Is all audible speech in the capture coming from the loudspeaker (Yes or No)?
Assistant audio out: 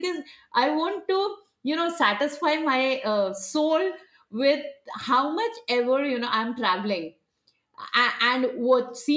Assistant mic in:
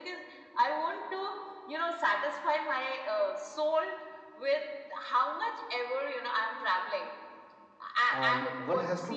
No